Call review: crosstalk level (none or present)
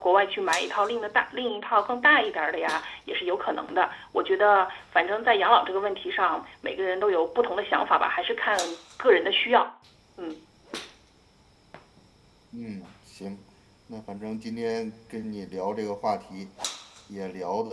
none